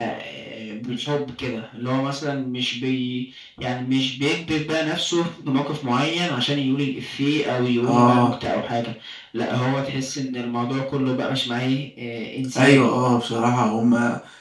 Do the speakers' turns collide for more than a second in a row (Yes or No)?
No